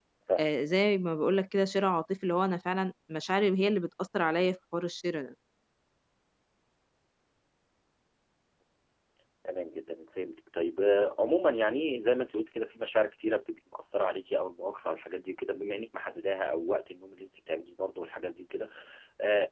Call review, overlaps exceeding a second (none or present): none